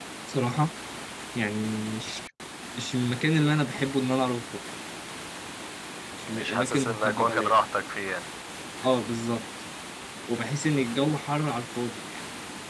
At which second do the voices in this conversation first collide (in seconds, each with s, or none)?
6.2 s